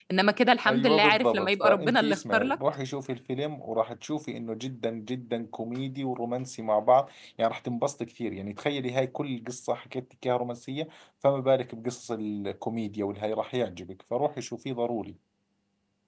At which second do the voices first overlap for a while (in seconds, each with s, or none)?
0.7 s